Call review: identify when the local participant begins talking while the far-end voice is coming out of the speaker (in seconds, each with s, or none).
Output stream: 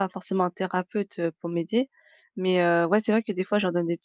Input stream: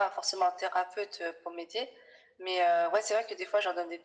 none